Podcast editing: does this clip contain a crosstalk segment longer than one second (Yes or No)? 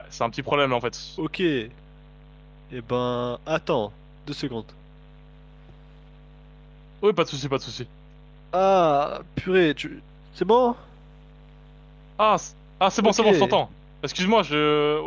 No